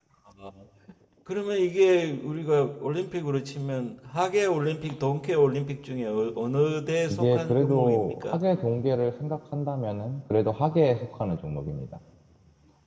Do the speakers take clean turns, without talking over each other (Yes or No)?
No